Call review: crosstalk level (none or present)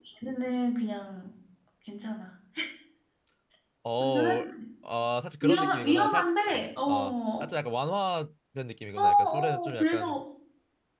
present